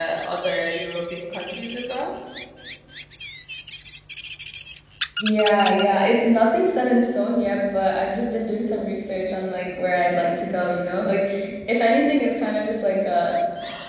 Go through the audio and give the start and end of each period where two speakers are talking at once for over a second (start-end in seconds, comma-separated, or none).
none